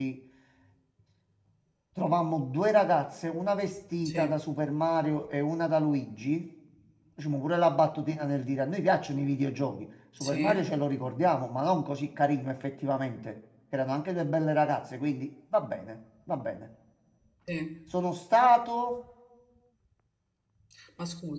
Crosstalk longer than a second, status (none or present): none